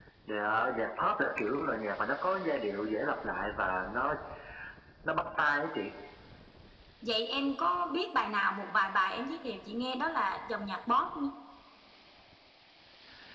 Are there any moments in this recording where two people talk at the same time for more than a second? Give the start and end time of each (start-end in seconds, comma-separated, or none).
none